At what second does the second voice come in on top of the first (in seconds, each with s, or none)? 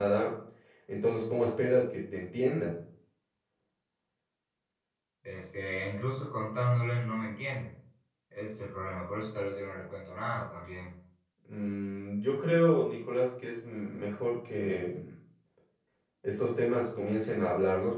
none